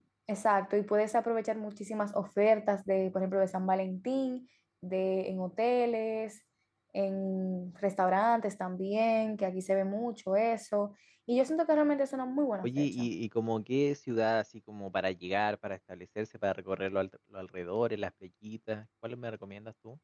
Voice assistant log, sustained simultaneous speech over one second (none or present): none